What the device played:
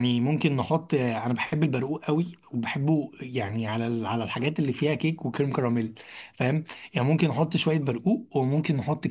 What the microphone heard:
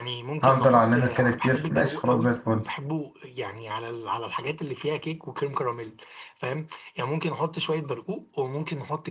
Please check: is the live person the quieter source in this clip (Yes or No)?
No